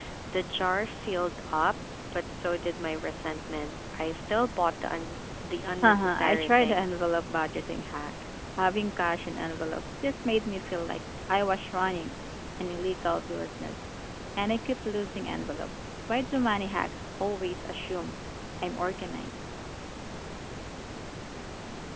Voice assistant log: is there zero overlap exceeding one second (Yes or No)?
No